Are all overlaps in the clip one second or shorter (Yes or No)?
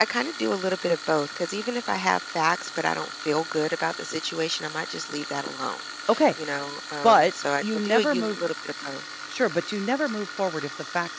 No